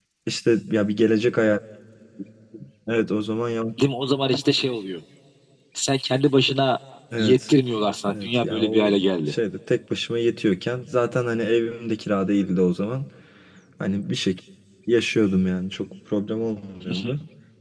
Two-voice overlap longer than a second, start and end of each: 8.1-9.3

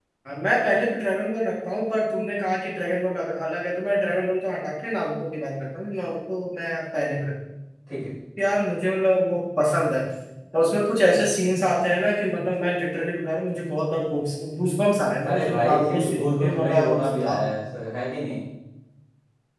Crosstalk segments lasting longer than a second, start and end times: 15.2-17.4

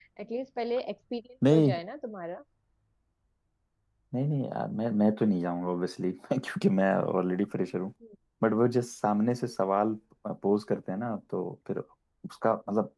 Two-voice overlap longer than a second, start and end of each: none

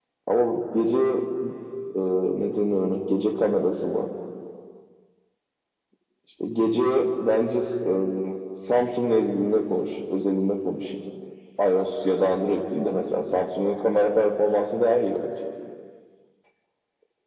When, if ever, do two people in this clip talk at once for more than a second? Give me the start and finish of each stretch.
none

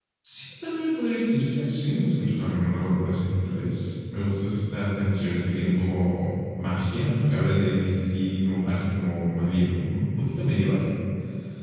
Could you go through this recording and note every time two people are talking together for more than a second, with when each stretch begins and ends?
none

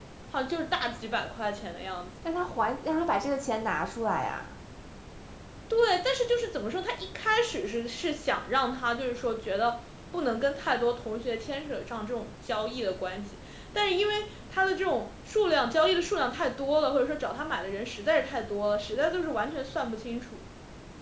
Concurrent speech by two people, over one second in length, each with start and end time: none

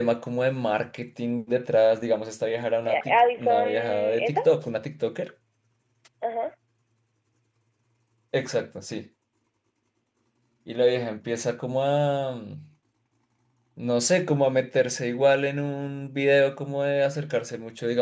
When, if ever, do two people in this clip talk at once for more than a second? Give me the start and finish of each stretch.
2.9-4.4

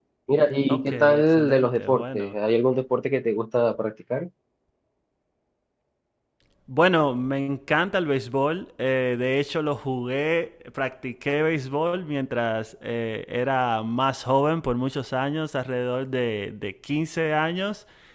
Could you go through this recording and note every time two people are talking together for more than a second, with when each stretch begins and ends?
0.7-2.4

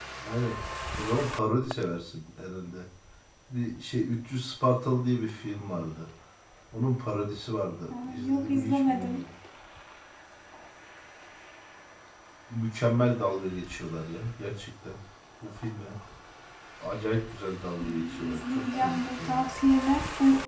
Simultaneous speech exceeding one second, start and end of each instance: 8.0-9.2, 17.8-19.5

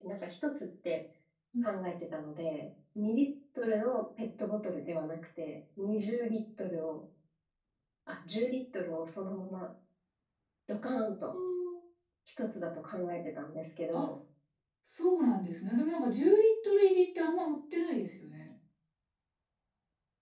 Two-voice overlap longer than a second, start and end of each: none

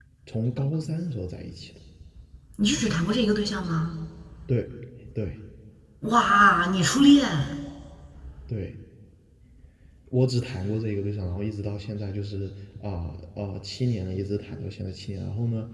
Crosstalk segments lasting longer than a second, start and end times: none

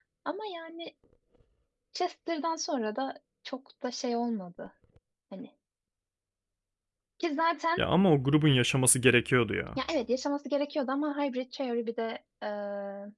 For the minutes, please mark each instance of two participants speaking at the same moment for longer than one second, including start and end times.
none

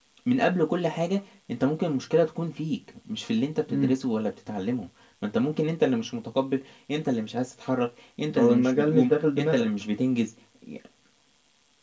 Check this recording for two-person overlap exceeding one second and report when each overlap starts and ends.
8.4-9.7

